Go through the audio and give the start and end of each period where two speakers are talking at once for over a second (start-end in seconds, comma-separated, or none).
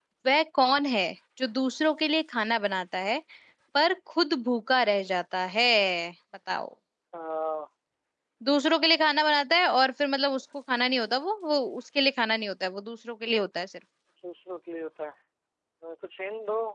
none